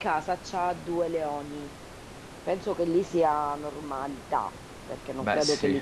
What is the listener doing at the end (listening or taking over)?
listening